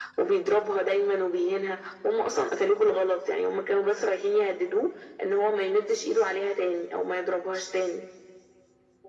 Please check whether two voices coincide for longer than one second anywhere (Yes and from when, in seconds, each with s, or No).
No